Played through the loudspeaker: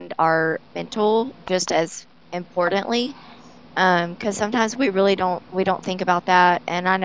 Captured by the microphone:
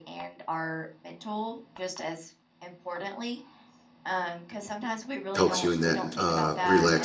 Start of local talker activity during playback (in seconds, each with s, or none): 5.3 s